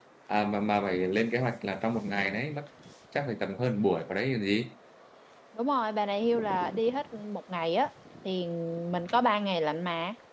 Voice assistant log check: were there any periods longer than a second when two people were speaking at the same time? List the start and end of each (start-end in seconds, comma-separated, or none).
none